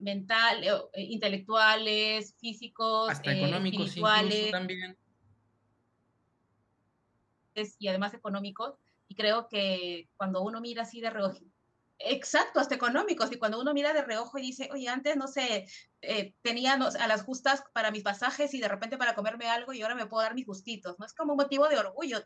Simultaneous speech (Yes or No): Yes